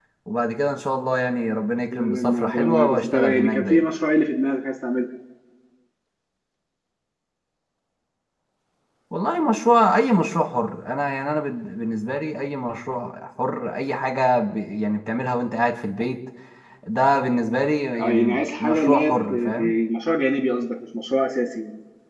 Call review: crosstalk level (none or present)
present